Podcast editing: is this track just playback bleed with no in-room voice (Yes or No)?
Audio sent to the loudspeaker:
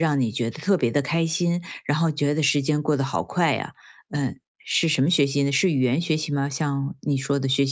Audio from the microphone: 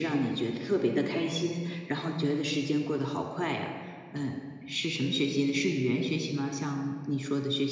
Yes